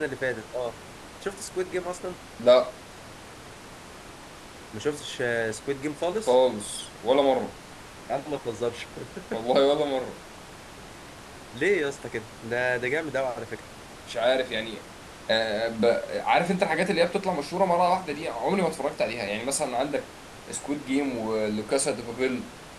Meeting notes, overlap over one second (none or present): none